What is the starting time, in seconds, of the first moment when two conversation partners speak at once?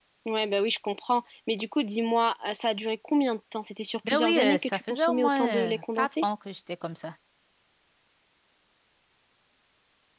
4.0 s

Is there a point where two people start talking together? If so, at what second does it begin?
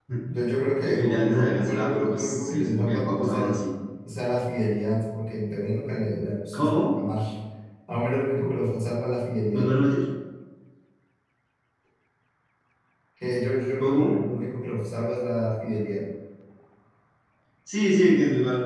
0.8 s

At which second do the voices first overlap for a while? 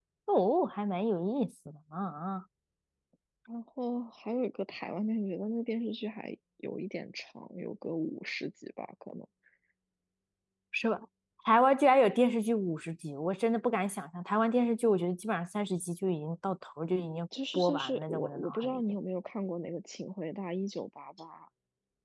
17.3 s

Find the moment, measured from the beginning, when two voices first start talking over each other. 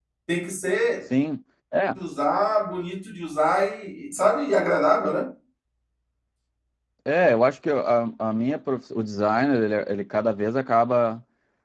none

